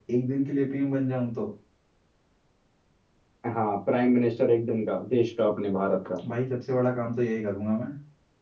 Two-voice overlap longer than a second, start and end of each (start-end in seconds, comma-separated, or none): none